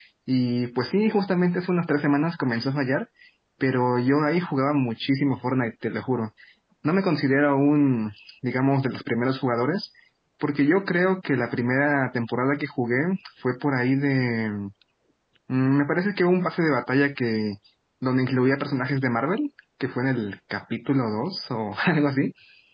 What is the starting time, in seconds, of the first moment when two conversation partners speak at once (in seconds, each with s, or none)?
none